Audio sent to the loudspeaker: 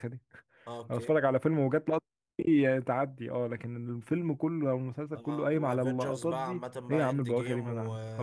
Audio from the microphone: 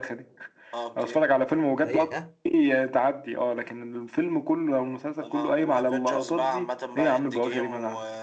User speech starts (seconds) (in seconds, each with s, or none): 1.8 s